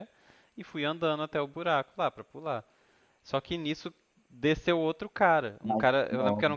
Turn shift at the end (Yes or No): No